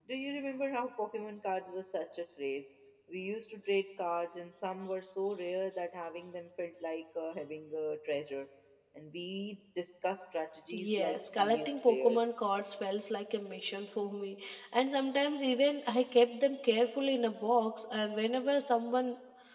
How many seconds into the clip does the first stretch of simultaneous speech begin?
10.7 s

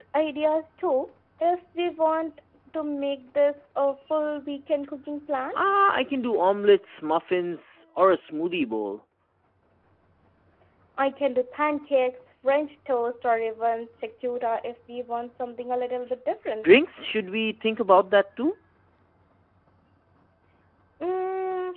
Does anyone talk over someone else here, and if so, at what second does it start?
none

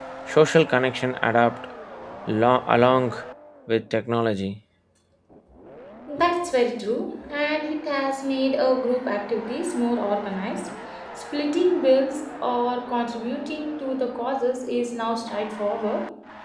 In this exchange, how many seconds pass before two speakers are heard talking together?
none

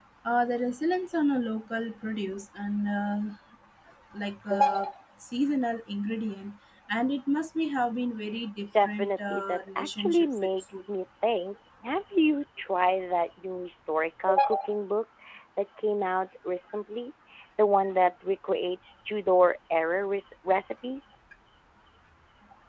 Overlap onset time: 8.8 s

